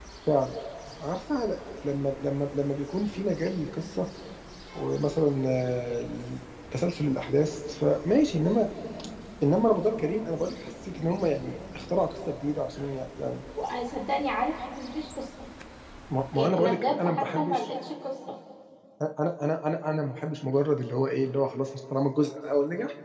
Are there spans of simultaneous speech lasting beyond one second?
Yes, from 16.3 s

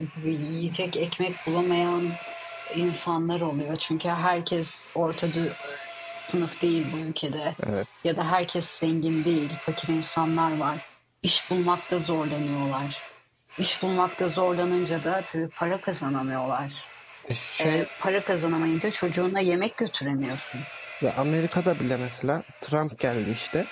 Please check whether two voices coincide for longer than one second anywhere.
No

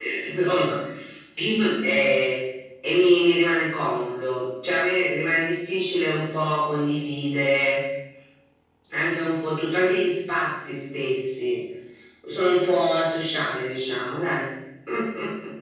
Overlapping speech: No

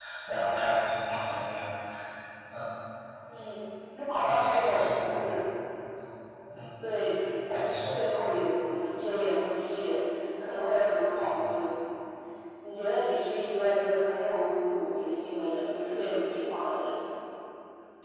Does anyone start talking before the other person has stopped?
Yes, from 4.1 s

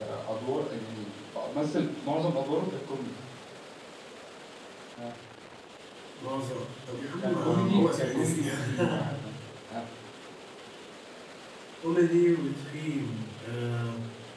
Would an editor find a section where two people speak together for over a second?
Yes, from 7.2 s

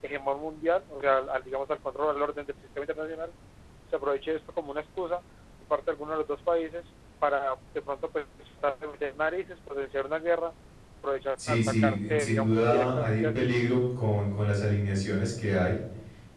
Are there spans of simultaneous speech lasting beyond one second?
Yes, from 11.5 s

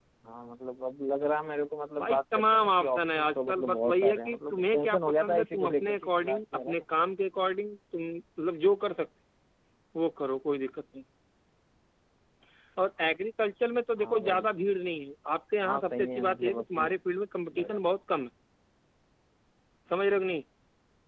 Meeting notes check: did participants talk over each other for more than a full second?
Yes, from 2.0 s

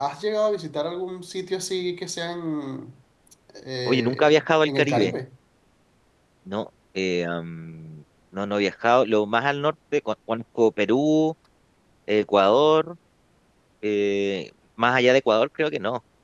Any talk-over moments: Yes, from 3.9 s

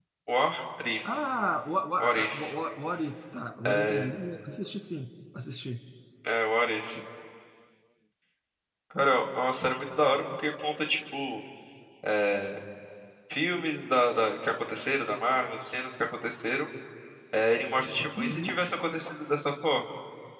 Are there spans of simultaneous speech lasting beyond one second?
No

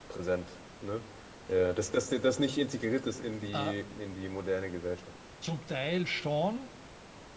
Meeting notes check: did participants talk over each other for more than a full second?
No

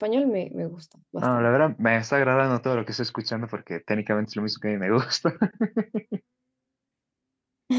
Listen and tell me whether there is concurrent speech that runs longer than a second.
No

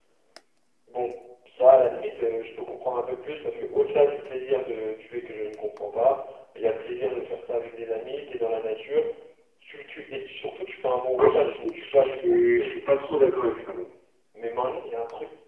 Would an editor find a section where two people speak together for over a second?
Yes, from 11.2 s

